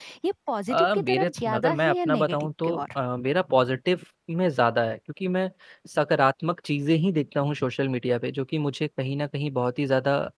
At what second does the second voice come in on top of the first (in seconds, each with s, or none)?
0.7 s